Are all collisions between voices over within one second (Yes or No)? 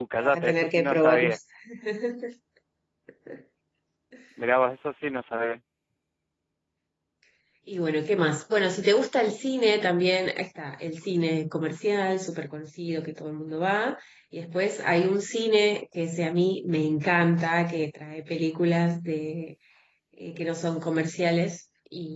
No